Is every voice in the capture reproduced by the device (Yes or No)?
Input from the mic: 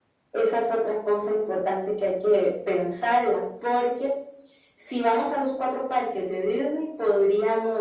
Yes